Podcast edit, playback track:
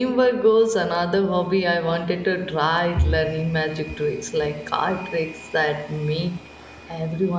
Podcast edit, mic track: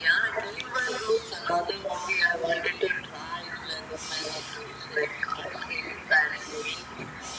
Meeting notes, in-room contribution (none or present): none